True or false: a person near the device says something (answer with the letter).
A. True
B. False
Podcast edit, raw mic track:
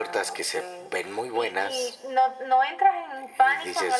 B